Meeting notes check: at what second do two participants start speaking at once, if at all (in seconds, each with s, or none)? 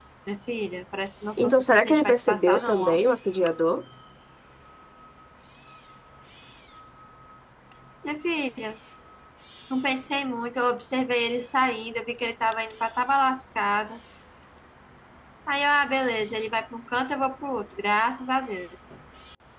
1.4 s